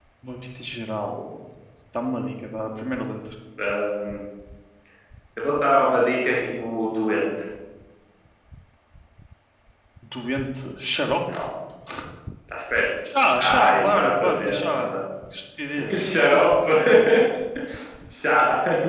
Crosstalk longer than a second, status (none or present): present